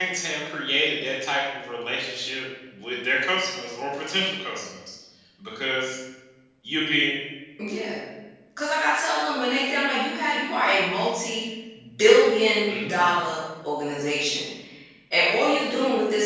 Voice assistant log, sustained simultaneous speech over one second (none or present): none